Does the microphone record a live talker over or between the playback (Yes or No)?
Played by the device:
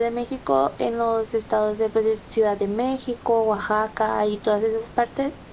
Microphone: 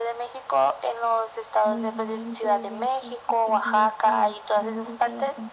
Yes